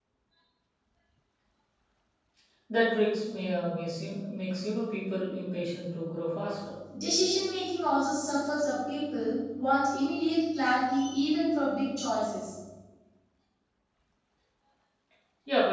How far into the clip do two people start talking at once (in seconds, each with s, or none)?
none